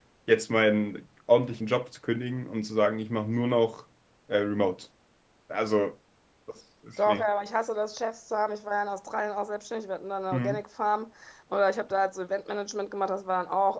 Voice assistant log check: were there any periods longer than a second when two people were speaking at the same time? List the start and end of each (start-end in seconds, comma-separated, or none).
none